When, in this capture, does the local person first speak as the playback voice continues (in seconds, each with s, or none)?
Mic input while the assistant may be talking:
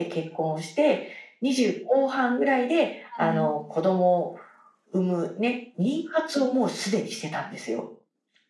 3.0 s